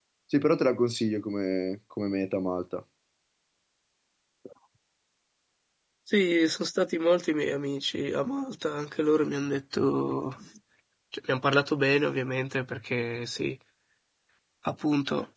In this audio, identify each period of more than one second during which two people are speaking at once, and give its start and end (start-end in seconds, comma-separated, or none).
none